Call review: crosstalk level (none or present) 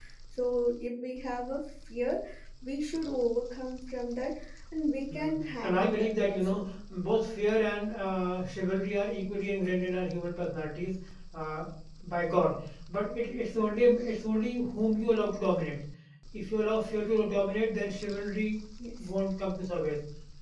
present